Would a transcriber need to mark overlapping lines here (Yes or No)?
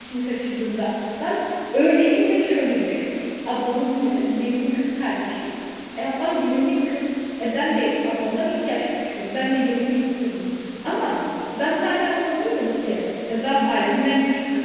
No